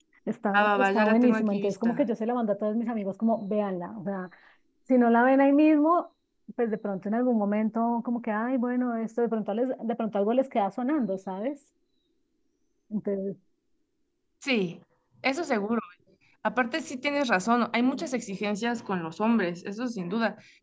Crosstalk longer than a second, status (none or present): present